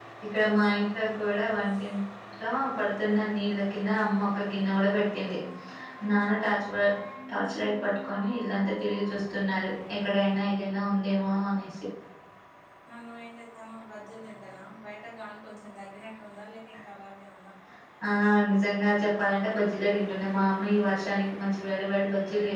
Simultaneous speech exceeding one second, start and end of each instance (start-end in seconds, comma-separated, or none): none